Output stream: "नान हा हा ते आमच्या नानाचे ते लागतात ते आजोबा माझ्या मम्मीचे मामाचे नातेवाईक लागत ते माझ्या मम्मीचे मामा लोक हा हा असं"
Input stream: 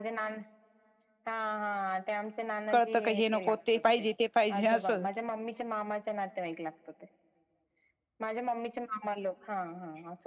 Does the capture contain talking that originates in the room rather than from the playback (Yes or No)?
Yes